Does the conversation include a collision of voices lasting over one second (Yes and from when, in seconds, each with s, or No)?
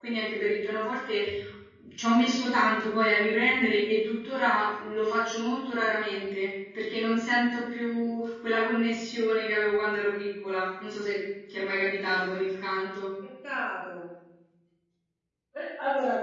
No